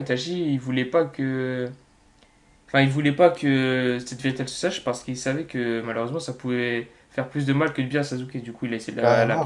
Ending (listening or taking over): taking over